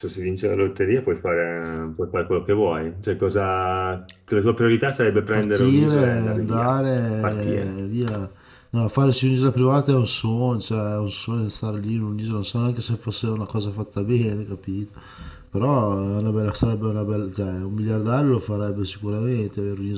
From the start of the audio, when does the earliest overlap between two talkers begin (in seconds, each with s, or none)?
5.3 s